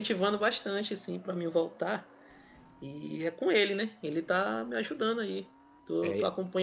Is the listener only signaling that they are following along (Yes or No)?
Yes